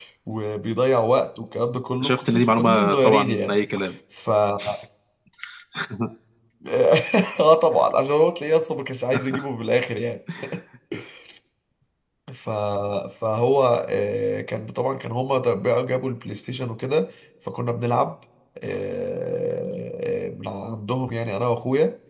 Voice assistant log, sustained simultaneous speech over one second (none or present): present